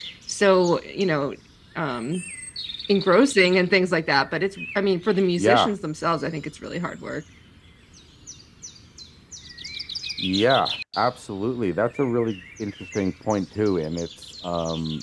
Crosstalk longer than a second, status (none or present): none